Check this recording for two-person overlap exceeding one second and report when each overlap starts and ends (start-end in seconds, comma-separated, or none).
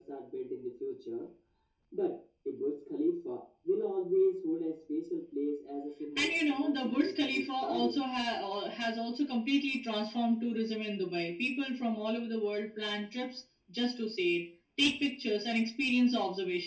6.2-8.0